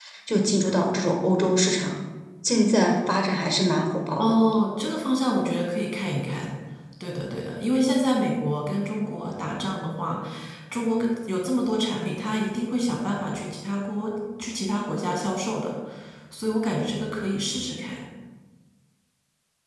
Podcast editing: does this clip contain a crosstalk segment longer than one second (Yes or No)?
No